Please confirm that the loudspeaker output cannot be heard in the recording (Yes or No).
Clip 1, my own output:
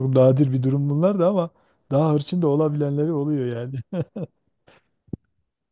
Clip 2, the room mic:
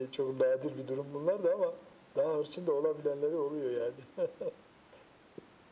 No